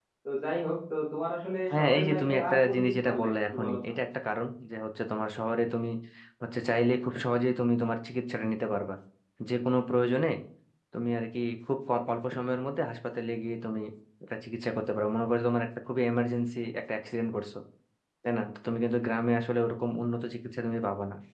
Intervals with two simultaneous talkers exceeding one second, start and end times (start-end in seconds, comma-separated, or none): 1.7-3.8